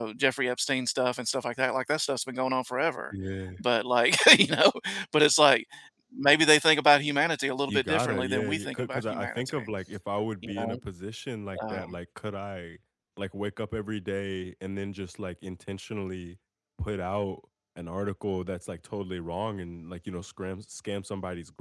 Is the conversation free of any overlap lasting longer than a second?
No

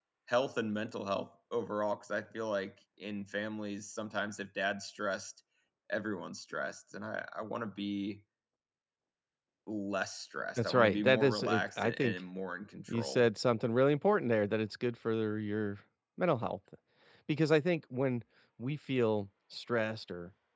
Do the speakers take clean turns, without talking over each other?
No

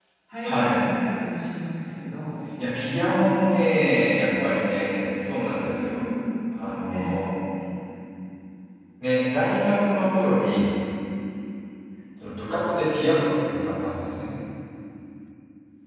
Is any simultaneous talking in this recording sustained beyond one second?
No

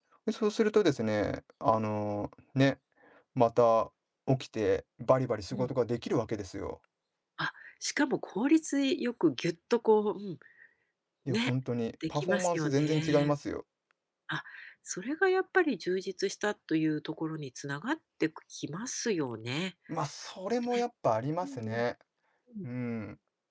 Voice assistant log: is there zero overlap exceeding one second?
No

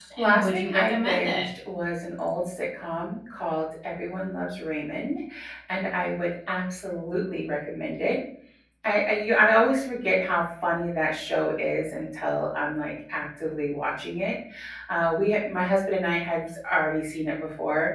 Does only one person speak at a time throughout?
No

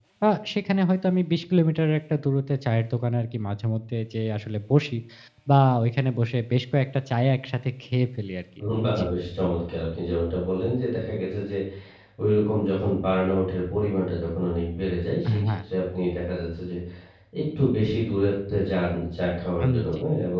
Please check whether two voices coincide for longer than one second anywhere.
No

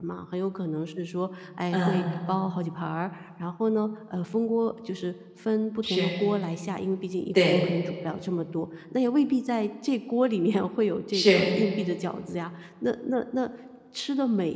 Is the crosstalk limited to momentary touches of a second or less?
Yes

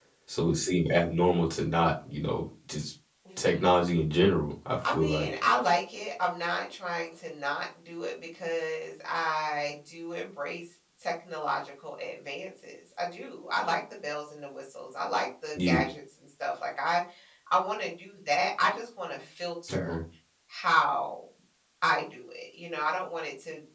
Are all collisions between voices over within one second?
Yes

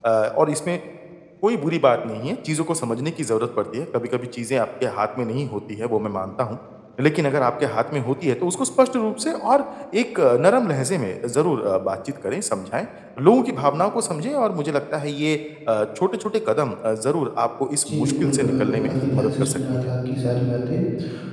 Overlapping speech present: Yes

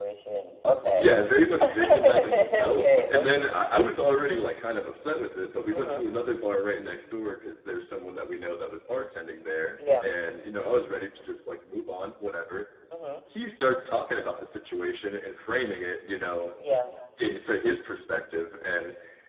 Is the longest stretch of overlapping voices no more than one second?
No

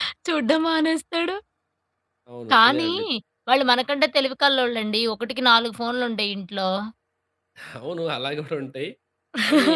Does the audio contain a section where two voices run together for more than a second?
No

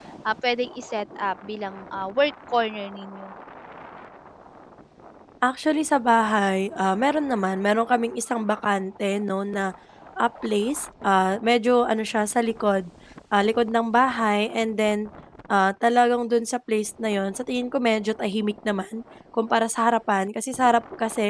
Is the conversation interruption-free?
Yes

